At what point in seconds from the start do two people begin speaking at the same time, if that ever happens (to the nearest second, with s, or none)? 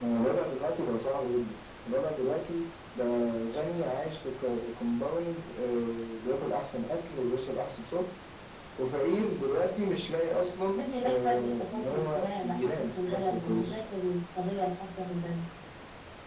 11 s